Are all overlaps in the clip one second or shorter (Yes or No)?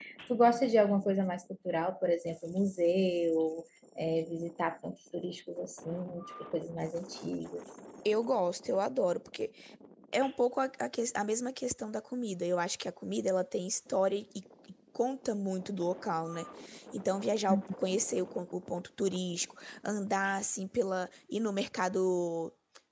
Yes